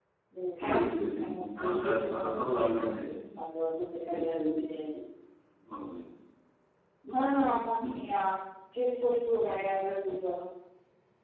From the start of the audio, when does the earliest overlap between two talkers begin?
1 s

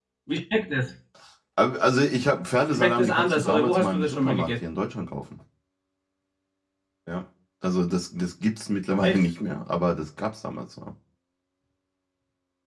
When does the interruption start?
3 s

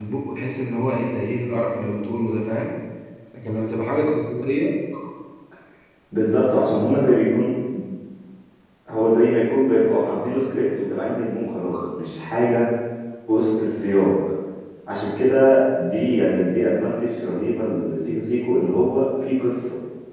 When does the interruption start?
none

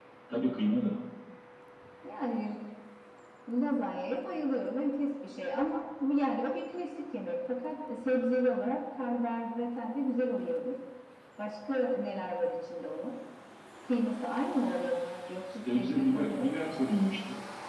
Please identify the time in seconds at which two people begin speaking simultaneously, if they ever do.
16 s

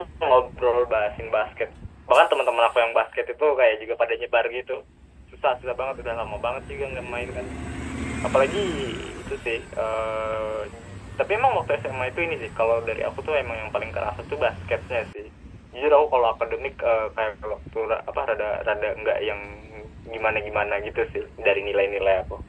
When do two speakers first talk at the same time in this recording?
none

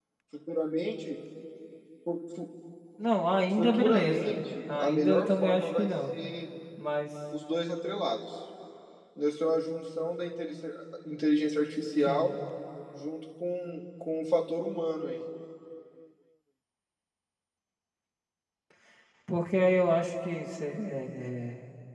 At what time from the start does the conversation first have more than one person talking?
4 s

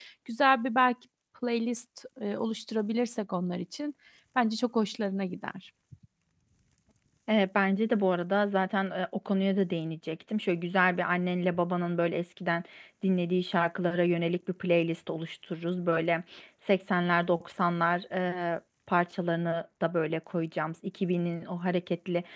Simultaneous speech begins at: none

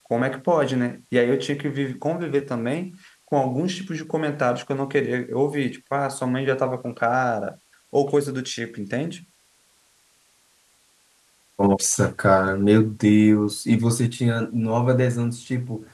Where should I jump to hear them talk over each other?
none

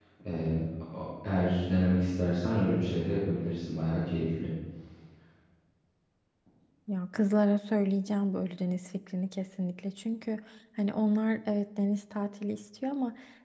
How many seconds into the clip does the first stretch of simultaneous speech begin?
none

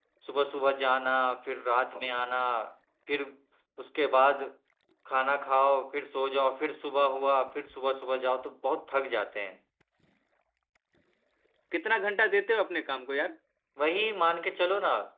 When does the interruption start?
none

